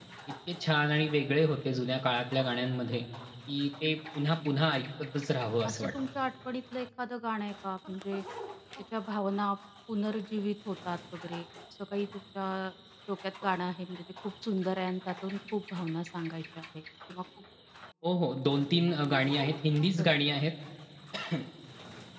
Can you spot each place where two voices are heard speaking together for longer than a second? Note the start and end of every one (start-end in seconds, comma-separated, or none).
none